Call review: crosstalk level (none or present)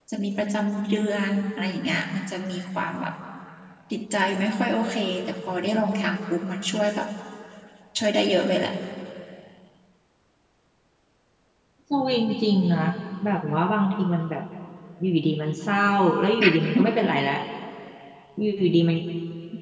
none